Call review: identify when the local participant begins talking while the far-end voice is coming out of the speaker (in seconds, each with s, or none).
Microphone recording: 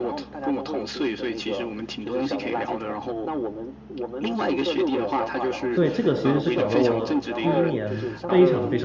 5.7 s